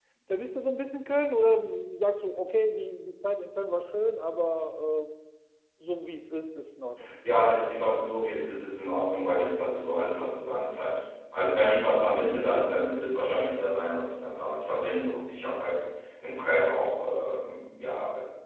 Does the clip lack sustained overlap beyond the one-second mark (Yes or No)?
Yes